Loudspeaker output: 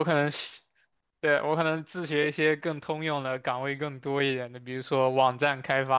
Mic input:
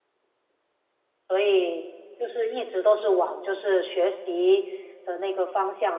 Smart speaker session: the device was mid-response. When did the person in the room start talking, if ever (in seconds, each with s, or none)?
1.3 s